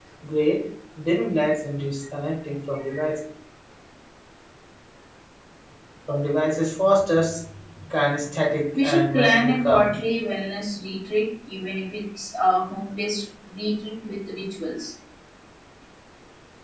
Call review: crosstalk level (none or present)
present